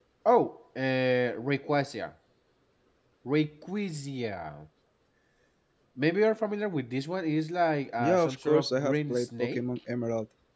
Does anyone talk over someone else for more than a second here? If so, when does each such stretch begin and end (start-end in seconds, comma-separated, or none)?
8.0-9.6